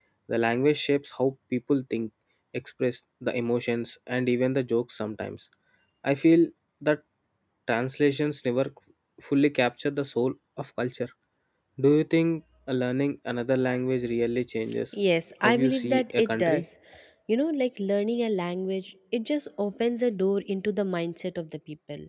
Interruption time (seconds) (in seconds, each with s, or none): 15.4 s